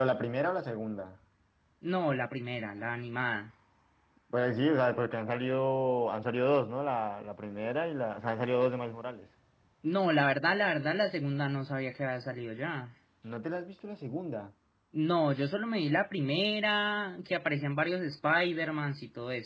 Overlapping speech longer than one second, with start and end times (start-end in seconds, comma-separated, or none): none